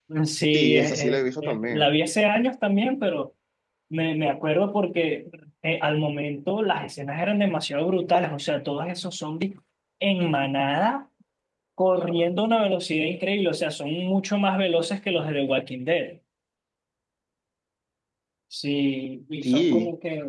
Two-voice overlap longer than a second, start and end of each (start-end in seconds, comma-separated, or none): 0.5-1.9